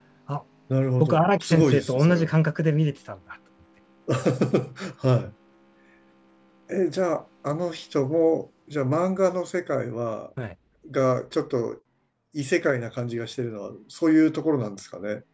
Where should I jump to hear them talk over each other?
1.0 s

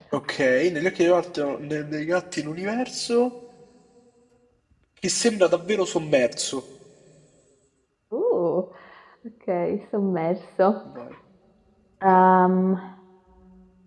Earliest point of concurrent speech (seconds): none

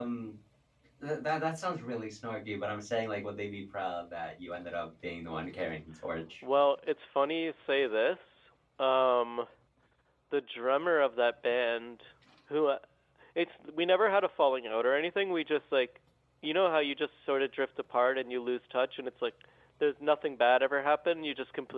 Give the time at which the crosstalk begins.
none

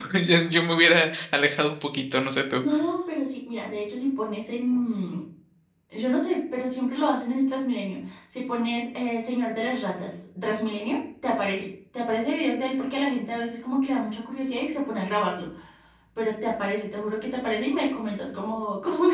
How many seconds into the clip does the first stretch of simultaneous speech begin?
none

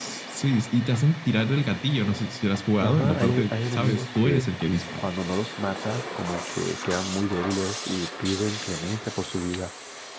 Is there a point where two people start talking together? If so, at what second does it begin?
2.8 s

